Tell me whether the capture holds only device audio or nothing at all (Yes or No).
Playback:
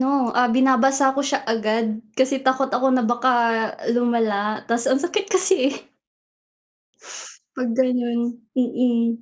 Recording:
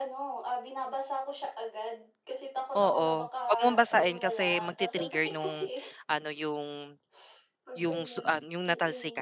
No